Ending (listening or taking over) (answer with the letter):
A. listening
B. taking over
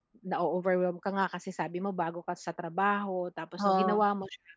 A